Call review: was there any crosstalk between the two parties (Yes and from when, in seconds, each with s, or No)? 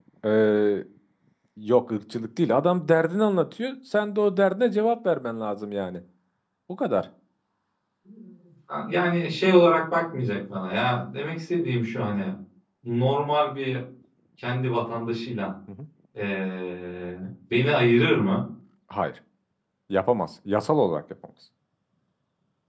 No